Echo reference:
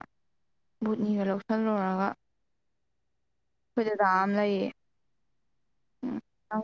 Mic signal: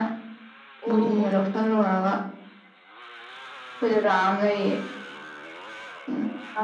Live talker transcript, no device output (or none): ꯑꯣ ꯑꯣ ꯑꯣ ꯍ ꯂꯄ ꯈꯅ ꯀ